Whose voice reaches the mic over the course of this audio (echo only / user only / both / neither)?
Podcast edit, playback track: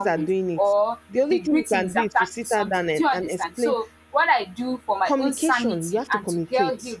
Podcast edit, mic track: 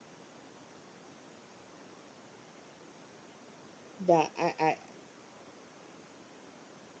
user only